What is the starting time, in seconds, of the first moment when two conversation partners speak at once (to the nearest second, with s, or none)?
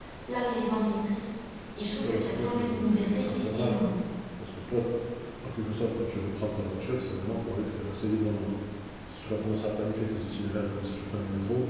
2 s